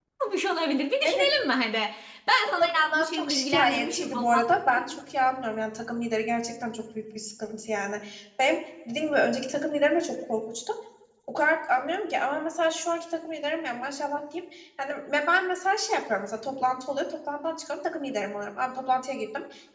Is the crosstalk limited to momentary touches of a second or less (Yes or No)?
No